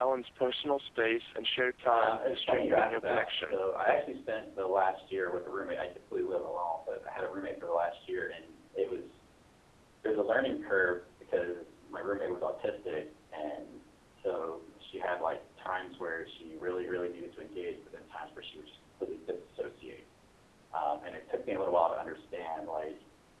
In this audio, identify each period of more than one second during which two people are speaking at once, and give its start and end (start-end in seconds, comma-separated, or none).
1.9-3.5